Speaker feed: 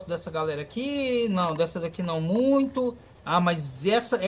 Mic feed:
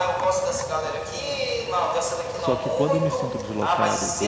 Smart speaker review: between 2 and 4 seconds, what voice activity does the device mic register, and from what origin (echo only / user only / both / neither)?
both